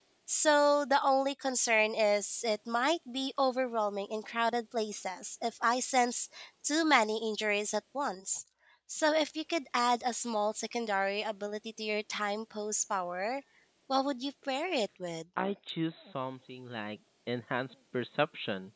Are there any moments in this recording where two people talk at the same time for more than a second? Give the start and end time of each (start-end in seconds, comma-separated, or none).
none